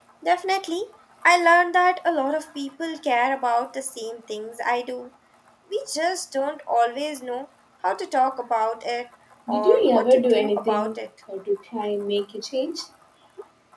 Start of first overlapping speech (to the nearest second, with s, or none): 9 s